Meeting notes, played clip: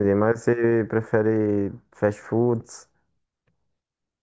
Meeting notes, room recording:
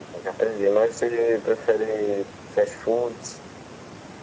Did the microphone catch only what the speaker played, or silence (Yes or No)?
Yes